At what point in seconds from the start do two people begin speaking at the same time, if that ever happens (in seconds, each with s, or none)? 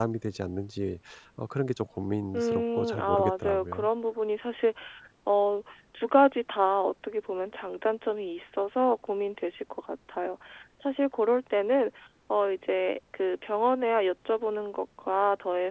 2.3 s